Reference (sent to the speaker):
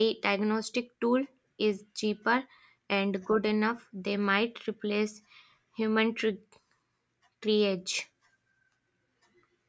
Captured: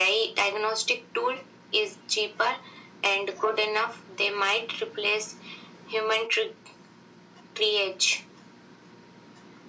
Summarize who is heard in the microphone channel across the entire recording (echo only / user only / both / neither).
echo only